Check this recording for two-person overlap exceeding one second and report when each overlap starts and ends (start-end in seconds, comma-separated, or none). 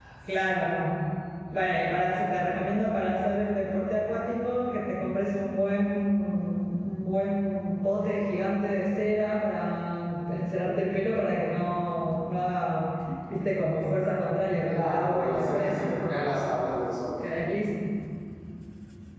14.7-15.9